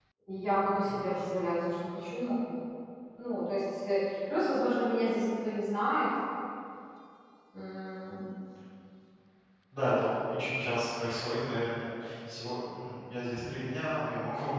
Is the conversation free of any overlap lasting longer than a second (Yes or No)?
Yes